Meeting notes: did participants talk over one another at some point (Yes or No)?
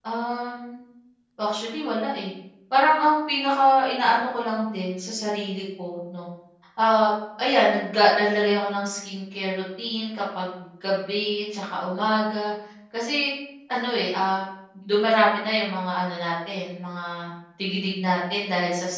No